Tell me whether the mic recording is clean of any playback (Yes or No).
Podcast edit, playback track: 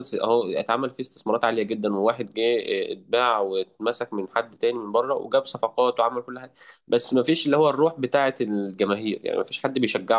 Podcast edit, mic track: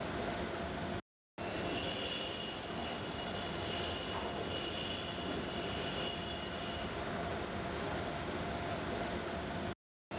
Yes